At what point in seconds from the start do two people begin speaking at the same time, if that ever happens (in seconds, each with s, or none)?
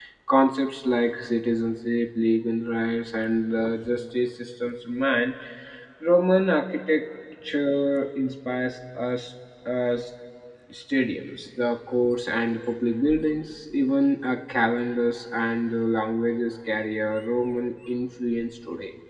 none